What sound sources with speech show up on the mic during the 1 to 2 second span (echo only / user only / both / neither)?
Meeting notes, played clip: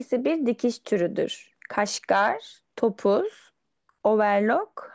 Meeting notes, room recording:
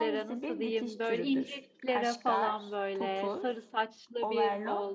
both